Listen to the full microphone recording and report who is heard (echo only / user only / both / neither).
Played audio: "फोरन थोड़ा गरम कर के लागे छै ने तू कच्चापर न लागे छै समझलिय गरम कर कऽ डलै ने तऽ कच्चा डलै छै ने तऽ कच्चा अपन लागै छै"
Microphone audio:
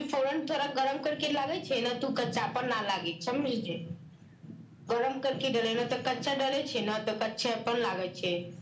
echo only